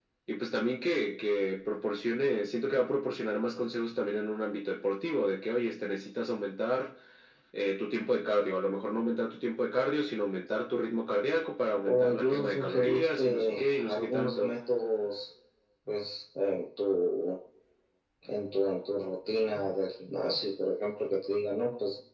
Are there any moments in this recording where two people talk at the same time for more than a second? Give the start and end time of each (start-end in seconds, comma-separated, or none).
11.9-14.5